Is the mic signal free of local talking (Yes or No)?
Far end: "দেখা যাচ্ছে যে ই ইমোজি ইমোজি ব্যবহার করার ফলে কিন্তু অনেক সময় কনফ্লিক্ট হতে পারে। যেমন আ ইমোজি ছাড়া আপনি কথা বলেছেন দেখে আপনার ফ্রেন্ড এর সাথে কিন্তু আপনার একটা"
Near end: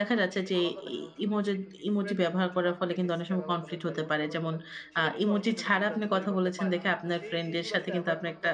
No